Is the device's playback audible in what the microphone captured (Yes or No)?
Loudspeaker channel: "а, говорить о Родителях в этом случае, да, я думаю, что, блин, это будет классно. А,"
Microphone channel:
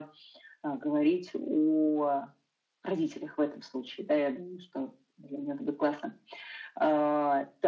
Yes